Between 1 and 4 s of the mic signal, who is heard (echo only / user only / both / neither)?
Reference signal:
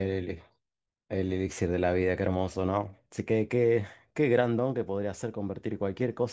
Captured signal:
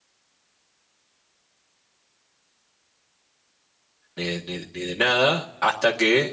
neither